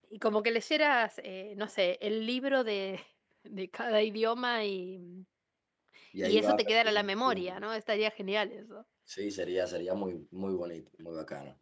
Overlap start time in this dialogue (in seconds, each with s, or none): 6.2 s